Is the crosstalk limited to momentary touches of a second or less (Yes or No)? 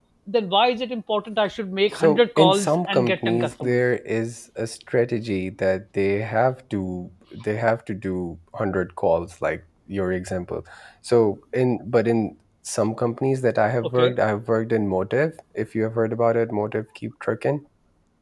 No